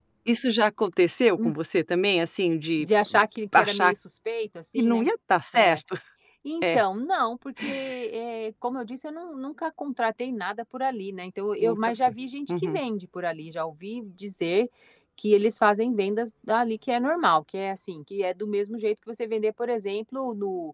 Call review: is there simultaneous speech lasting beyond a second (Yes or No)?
No